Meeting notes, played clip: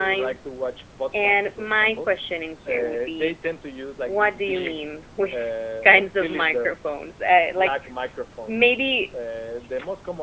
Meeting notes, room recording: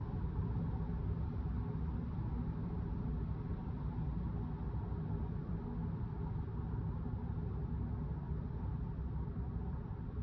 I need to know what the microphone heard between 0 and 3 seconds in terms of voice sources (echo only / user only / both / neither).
neither